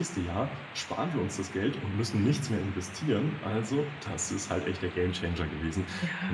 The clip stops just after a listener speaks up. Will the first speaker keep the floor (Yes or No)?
No